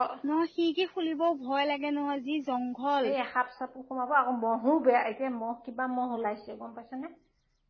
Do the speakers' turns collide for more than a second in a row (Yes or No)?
No